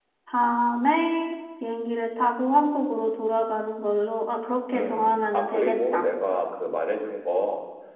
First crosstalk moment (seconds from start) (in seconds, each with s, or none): 4.7 s